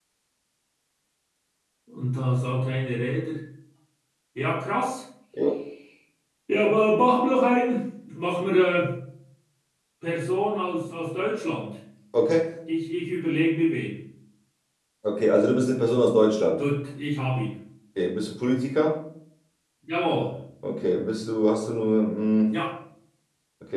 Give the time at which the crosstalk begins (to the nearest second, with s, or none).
none